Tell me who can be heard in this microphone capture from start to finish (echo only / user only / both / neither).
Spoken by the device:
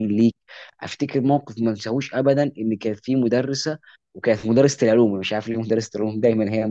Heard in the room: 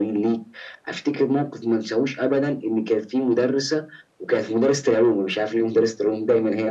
echo only